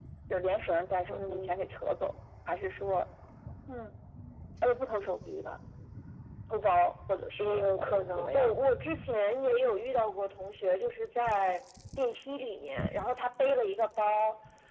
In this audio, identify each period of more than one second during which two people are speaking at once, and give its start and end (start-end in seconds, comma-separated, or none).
7.4-8.7